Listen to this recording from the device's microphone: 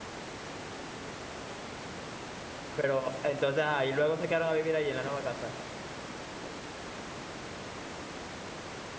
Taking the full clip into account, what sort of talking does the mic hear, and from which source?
user only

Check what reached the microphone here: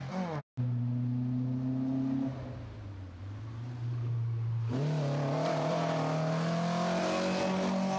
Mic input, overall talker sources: neither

